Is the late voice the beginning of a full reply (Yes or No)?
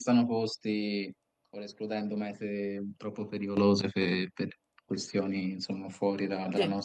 No